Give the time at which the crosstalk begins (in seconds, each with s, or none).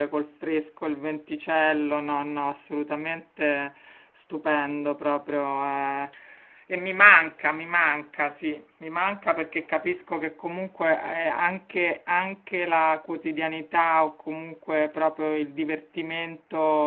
none